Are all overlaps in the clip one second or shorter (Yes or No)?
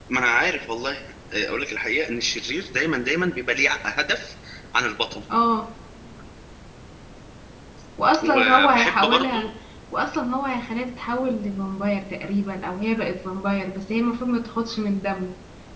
No